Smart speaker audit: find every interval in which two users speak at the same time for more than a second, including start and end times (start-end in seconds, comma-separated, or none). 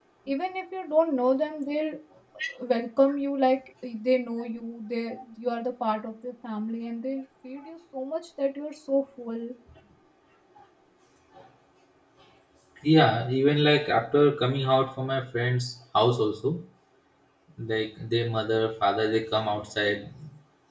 none